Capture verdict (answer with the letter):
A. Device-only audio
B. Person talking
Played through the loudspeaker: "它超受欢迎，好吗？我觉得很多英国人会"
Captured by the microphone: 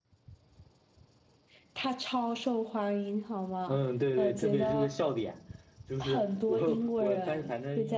B